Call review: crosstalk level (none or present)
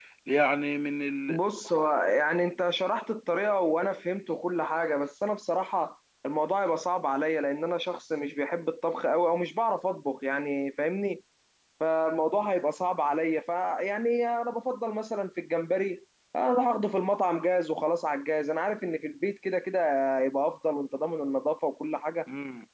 none